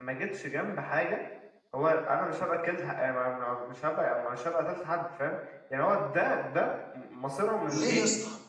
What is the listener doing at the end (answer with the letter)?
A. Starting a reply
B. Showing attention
A